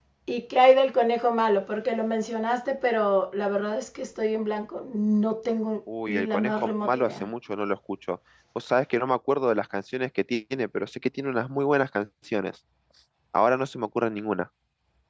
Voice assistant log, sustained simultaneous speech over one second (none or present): present